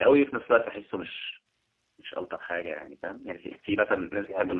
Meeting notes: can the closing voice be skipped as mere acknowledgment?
Yes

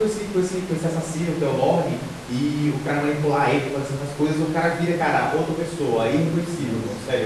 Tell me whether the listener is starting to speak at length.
No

